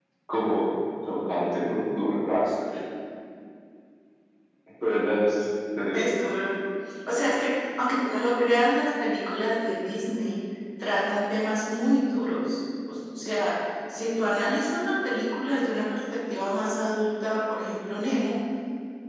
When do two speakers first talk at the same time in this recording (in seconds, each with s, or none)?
none